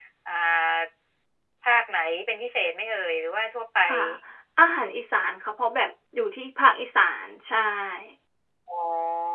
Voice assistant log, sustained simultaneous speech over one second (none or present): none